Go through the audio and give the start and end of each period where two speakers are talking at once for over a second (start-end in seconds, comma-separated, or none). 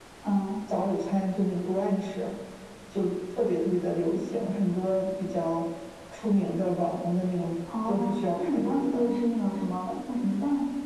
7.9-9.1